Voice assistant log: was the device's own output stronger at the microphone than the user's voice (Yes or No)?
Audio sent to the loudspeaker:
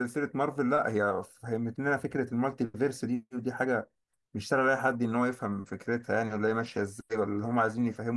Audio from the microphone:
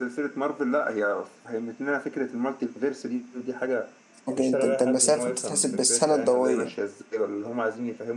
No